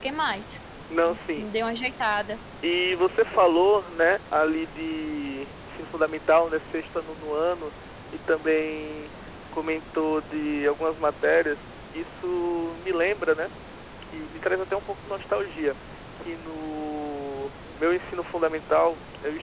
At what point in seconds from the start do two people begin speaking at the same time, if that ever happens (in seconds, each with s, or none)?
none